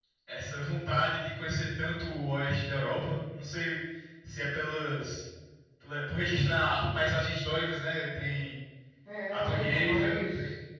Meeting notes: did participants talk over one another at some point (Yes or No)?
Yes